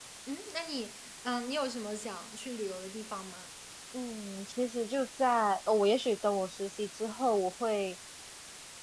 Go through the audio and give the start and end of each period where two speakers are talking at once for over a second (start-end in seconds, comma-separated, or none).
none